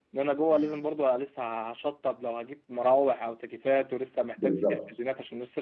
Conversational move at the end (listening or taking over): listening